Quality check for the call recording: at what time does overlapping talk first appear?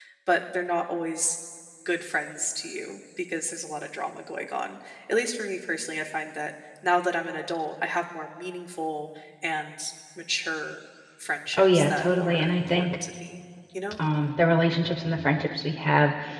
11 s

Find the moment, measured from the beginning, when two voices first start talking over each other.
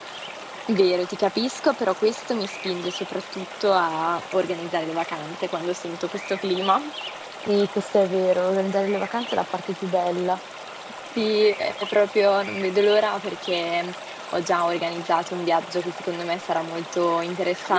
none

